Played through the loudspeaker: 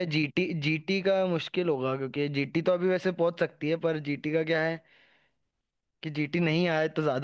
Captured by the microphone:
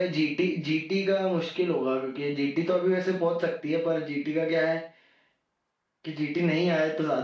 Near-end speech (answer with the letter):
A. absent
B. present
A